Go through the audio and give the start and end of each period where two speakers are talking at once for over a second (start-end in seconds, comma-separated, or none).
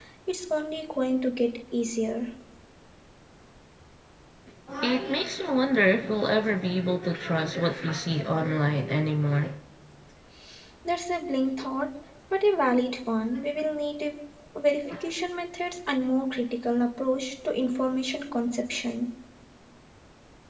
none